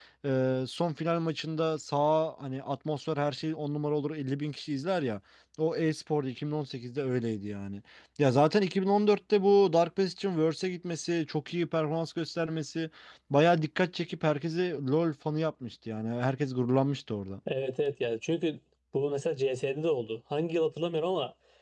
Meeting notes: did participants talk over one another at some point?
No

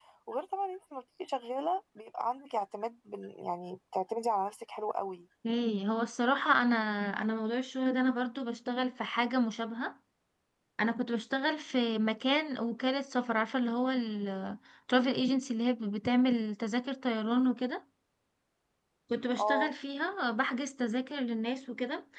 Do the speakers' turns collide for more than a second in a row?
No

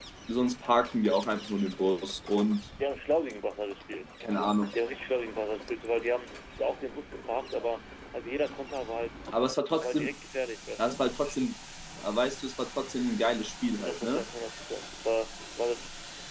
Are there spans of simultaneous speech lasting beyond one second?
No

